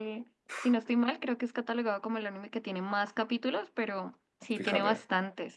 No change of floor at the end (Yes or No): Yes